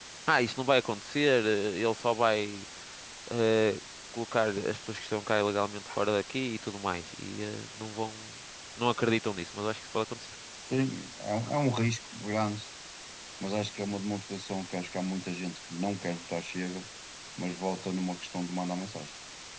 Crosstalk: none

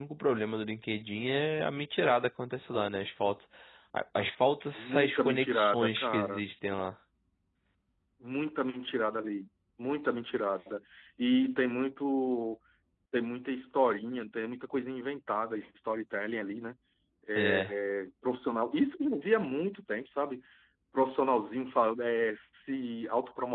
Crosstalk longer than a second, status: present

